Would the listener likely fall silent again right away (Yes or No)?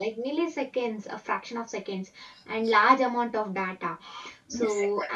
Yes